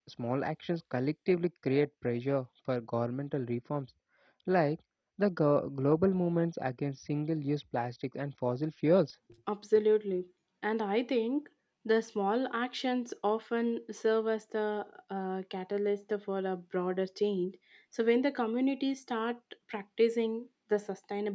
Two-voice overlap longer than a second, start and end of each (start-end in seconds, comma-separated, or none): none